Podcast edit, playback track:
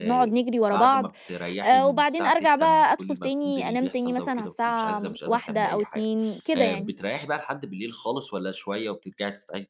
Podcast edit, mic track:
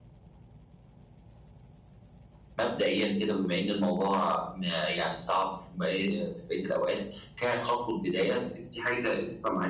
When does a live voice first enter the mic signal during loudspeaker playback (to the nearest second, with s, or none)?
3 s